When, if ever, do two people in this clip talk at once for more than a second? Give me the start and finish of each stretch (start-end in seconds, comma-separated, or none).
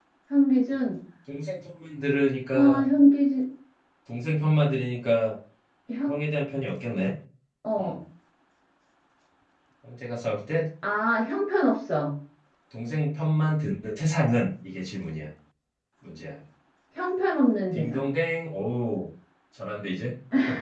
none